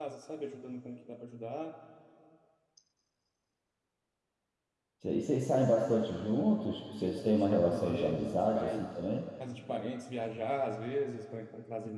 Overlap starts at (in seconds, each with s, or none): 7.0 s